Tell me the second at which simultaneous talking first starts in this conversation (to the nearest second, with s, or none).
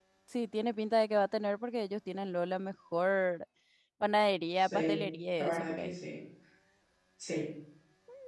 5 s